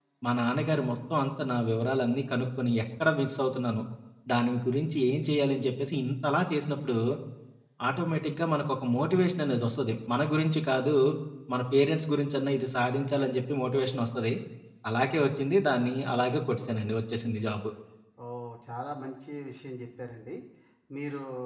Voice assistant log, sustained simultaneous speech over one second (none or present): none